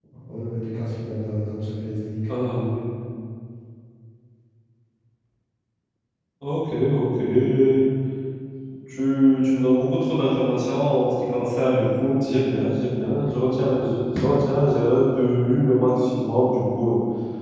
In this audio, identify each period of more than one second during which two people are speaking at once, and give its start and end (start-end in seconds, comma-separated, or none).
none